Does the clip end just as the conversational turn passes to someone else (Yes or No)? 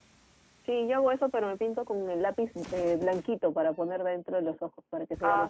Yes